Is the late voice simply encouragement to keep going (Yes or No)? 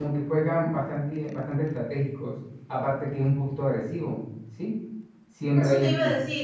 No